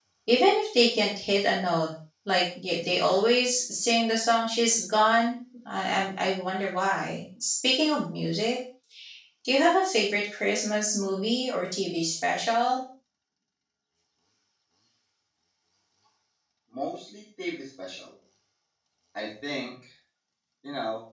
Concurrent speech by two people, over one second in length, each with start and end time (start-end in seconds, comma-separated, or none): none